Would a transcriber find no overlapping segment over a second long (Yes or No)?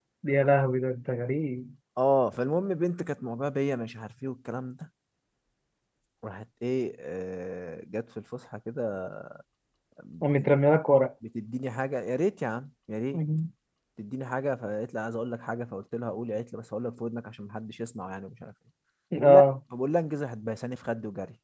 Yes